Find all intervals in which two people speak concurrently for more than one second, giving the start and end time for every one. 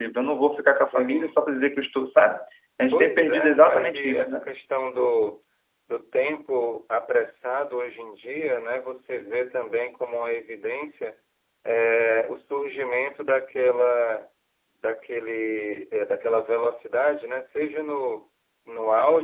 2.9-4.4

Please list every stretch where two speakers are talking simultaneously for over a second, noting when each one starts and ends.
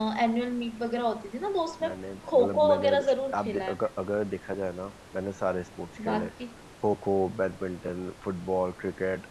2.3-3.8

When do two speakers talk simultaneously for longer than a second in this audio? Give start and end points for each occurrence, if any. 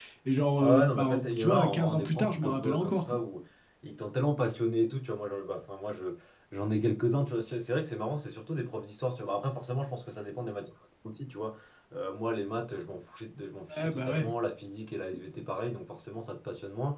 0.6-3.0

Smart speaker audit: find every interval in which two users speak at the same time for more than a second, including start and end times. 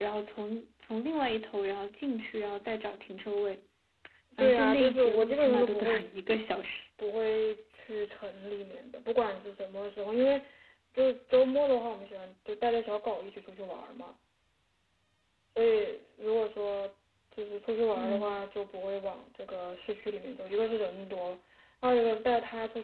4.4-6.0

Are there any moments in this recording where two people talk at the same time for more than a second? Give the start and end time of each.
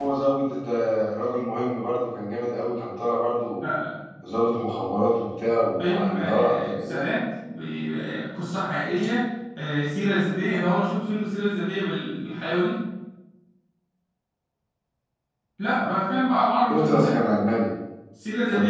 5.8-7.0

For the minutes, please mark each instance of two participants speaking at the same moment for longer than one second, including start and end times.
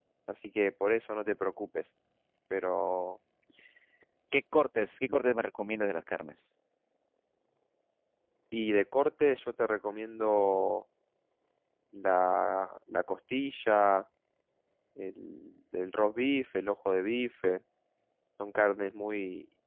none

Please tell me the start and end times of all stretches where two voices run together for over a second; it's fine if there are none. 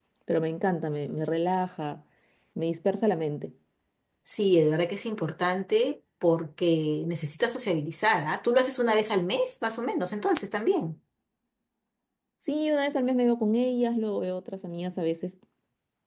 none

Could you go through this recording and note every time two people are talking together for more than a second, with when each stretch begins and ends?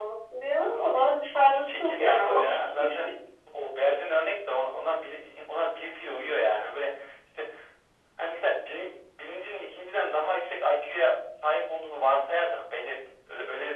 1.5-3.1

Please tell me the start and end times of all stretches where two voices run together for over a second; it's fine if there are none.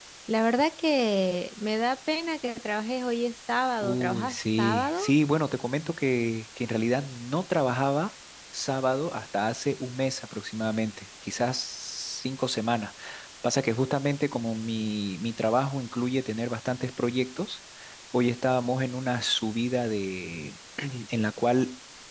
3.8-5.0

